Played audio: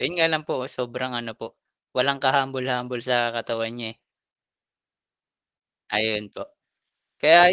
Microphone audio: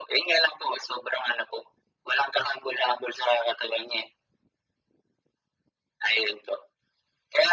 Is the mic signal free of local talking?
Yes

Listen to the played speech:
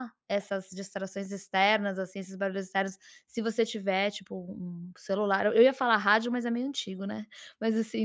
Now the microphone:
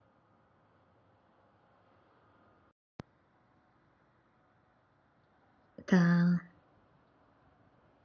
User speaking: Yes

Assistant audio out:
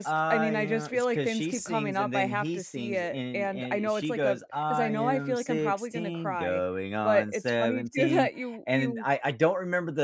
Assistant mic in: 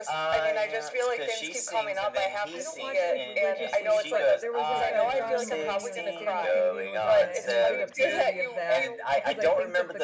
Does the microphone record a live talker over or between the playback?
Yes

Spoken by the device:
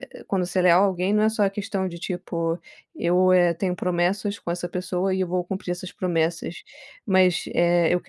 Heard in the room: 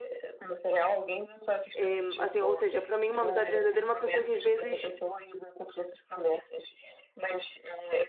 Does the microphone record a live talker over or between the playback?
Yes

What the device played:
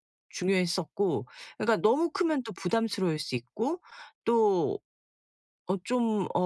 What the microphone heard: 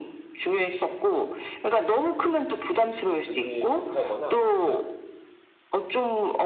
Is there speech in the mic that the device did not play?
Yes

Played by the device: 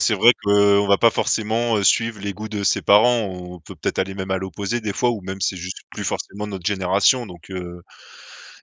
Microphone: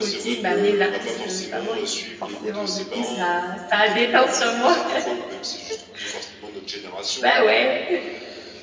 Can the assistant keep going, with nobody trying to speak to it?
No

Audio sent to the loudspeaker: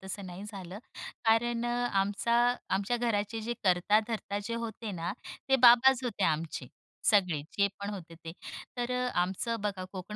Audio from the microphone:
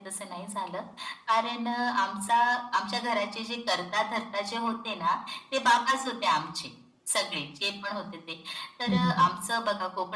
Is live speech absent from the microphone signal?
No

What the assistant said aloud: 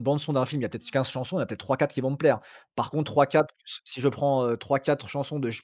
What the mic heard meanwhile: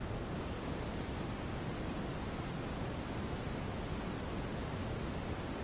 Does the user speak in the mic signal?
No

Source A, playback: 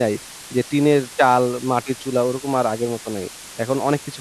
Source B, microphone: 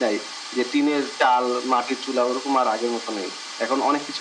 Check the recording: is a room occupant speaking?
No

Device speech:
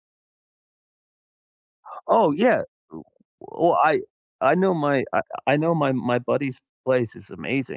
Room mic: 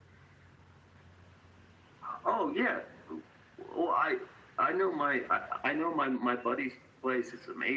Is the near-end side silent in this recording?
Yes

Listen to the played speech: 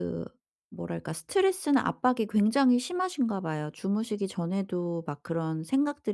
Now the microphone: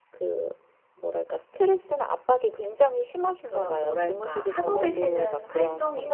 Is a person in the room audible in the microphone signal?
Yes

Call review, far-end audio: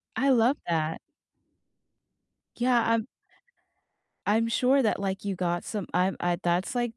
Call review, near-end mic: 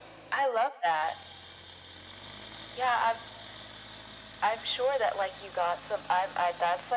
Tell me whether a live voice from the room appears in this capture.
No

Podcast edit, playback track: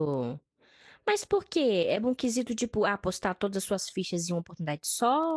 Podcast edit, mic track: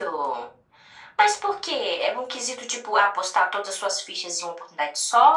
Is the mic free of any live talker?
Yes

